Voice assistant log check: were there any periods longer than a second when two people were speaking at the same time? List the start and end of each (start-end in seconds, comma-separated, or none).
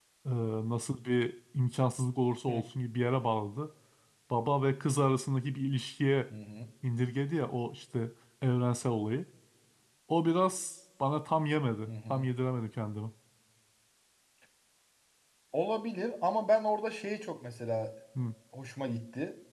none